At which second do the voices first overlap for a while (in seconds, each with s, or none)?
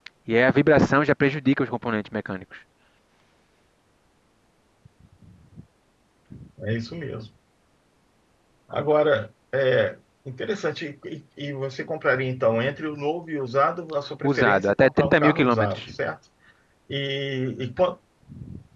14.2 s